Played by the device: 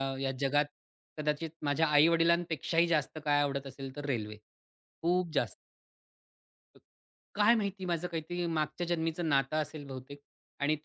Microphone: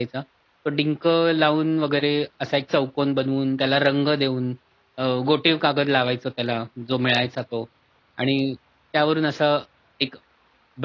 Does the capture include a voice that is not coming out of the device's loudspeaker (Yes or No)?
Yes